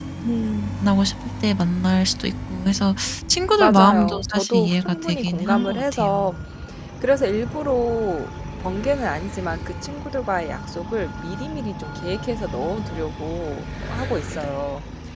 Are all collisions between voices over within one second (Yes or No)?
No